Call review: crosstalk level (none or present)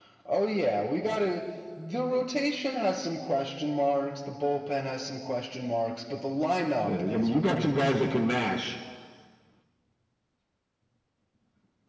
present